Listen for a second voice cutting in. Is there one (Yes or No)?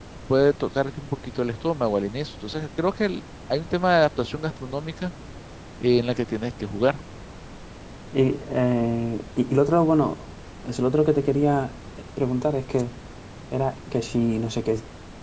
No